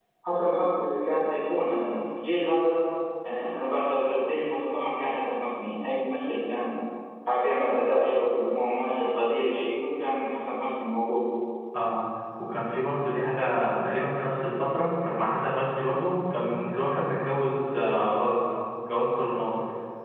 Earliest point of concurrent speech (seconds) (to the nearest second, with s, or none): none